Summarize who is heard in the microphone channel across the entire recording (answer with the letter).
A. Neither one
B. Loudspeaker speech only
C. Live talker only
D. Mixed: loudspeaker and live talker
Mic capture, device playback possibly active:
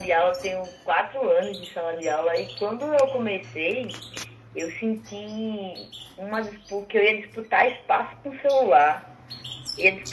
B